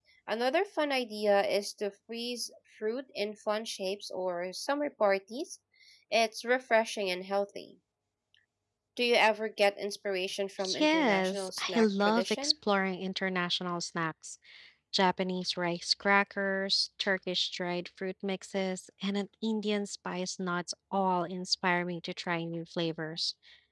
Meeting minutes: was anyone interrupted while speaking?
Yes, from 10.6 s

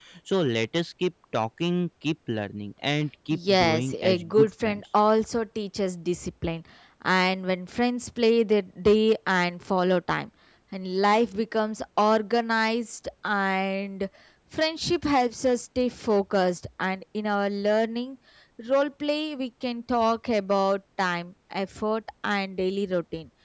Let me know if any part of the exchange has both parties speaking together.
Yes, from 3.3 s

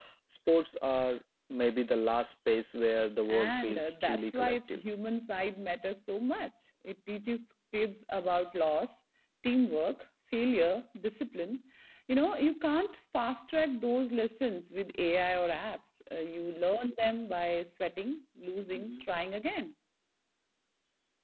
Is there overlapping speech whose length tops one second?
Yes, from 3.3 s

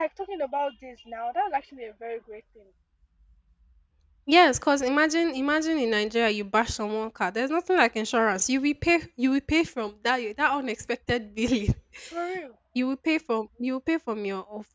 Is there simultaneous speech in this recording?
No

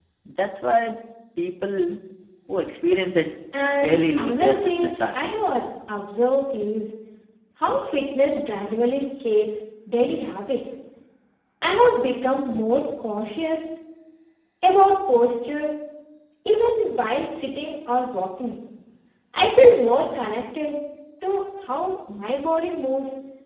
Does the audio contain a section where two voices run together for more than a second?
Yes, from 3.5 s

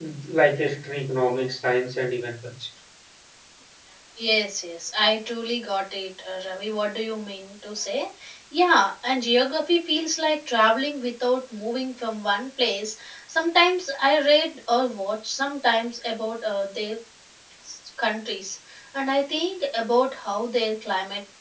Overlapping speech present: No

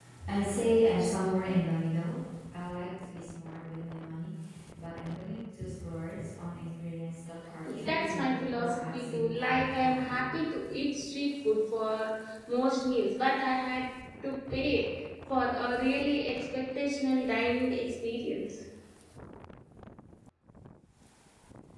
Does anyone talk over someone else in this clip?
Yes, from 7.6 s

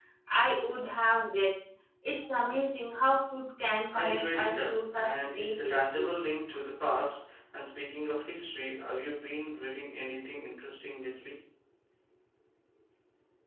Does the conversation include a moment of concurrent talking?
Yes, from 3.9 s

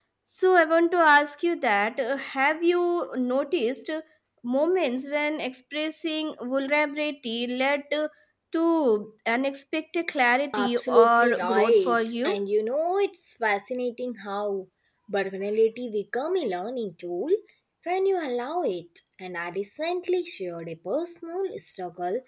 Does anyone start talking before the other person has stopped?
Yes, from 10.5 s

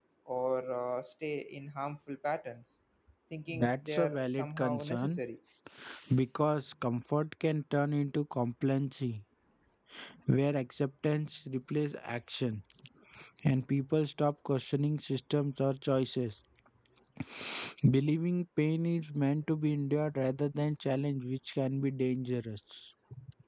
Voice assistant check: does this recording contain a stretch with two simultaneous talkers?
Yes, from 3.5 s

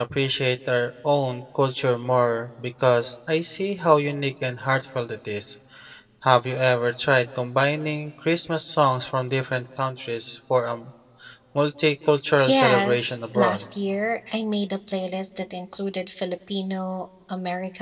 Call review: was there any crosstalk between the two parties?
Yes, from 12.4 s

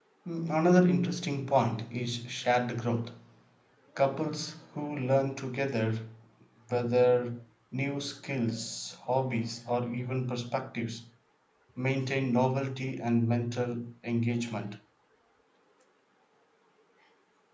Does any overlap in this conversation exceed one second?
No

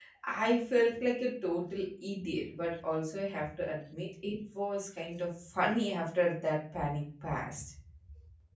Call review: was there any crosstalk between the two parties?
No

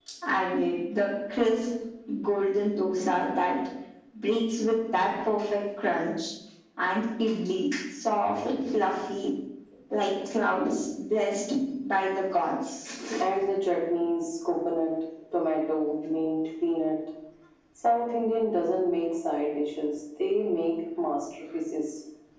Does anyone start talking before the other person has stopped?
No

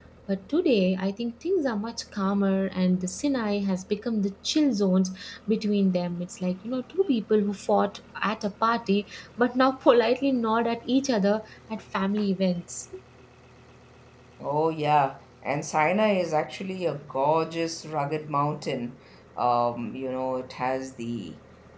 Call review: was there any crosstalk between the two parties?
No

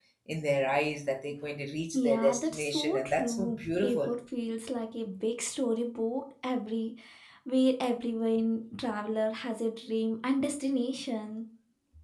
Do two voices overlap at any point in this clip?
Yes, from 1.9 s

